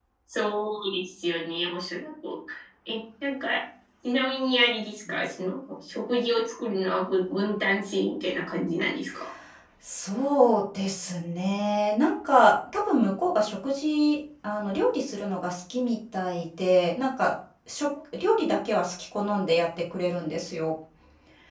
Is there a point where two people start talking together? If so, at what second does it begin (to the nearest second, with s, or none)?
none